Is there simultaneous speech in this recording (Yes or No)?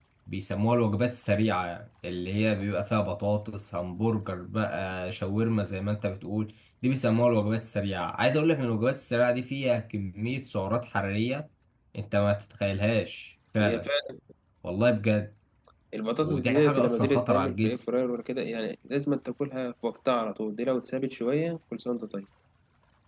Yes